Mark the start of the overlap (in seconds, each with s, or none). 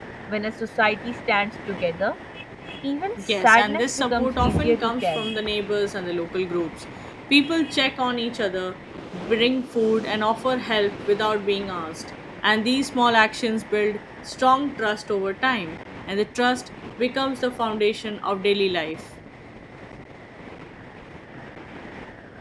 3.2 s